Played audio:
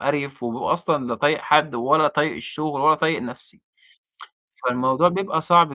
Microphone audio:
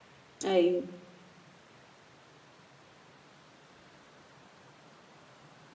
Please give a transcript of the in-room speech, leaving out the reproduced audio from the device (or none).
أيوه،